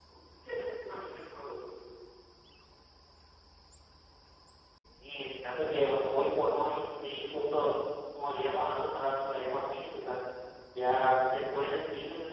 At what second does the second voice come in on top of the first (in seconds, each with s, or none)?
none